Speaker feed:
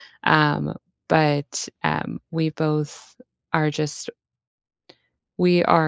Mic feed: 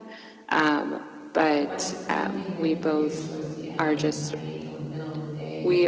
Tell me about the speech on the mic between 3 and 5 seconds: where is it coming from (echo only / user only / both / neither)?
both